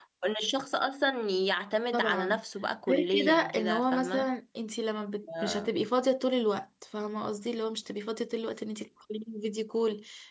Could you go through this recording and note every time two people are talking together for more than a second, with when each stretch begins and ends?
2.9-4.3

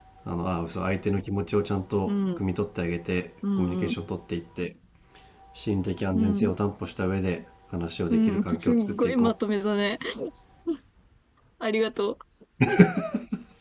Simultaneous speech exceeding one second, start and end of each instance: 8.1-9.3

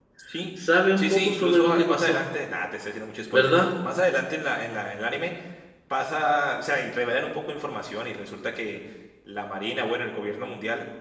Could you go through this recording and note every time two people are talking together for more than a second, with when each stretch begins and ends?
1.0-2.3

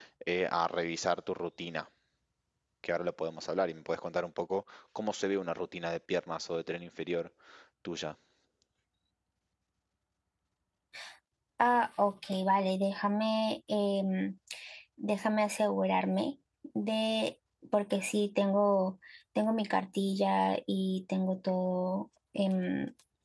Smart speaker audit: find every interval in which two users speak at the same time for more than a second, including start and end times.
none

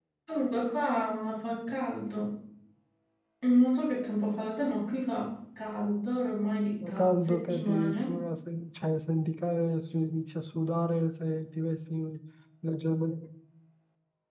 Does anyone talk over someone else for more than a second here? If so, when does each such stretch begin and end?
6.8-8.1

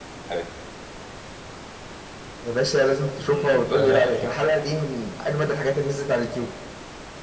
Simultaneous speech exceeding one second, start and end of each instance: 3.3-4.8

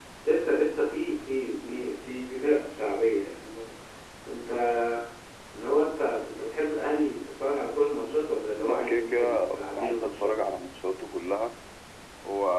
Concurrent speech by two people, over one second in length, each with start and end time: 8.7-10.3

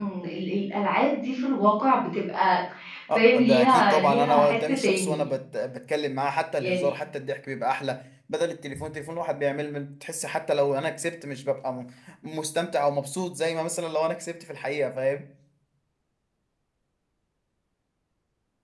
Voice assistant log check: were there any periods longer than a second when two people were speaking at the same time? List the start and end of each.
3.2-5.3

